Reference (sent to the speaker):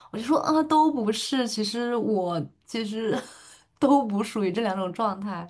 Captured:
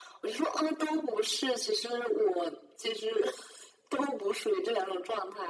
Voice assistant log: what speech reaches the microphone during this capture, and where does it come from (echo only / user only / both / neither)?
echo only